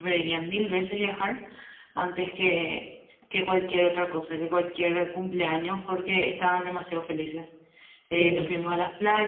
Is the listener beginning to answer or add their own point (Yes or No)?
No